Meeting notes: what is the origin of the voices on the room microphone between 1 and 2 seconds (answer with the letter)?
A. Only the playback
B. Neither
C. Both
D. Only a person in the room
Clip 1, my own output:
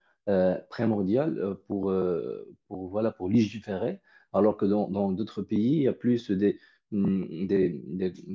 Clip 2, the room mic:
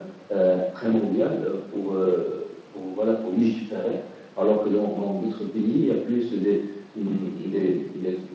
A